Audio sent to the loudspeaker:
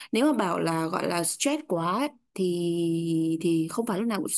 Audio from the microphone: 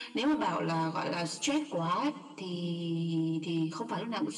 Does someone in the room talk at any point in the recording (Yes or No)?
No